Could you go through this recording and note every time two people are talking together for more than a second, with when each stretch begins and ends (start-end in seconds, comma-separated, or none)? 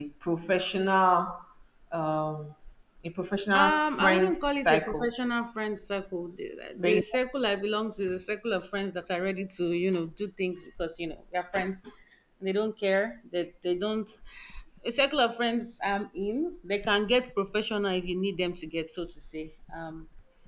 3.5-5.1